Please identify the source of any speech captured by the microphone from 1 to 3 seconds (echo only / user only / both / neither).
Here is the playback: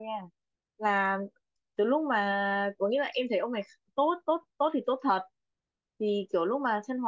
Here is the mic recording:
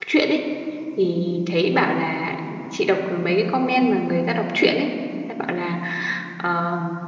user only